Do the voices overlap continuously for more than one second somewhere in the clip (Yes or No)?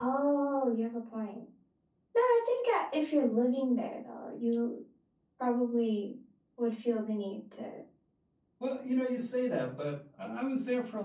No